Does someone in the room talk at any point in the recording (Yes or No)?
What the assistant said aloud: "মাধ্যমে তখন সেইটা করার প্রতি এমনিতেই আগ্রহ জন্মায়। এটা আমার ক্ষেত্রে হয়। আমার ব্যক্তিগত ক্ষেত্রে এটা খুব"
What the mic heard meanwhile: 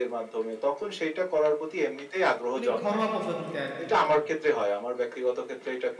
Yes